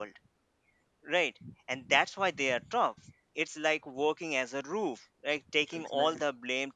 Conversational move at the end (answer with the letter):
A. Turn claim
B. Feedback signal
B